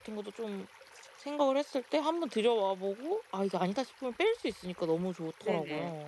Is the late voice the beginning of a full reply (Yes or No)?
Yes